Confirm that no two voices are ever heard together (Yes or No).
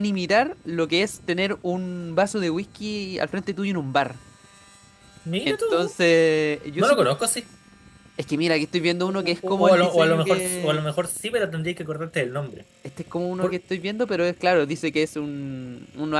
No